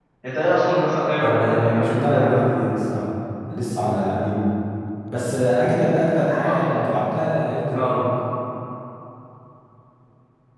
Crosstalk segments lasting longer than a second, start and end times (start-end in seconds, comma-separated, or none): 1.2-2.4